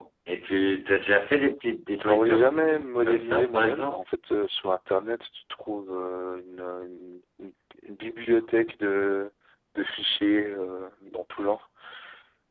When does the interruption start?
2.0 s

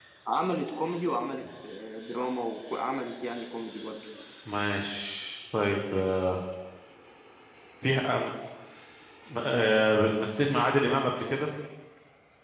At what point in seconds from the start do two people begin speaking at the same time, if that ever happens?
none

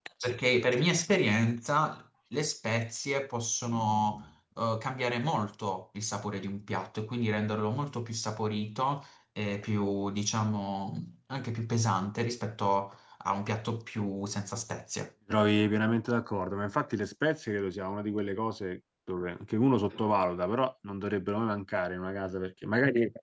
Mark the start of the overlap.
none

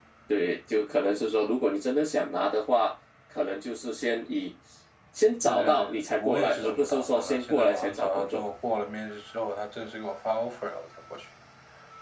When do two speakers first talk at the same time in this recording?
5.5 s

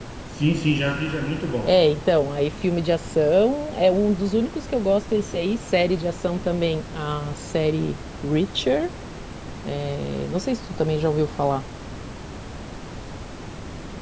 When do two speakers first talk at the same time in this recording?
none

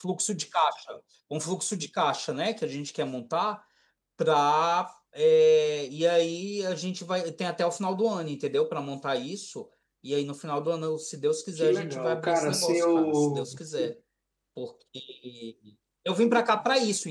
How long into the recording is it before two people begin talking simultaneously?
11.6 s

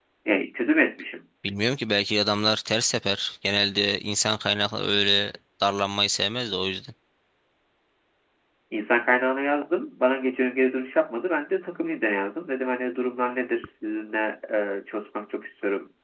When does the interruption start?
none

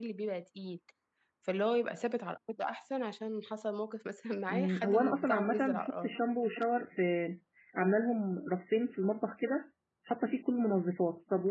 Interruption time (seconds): 4.5 s

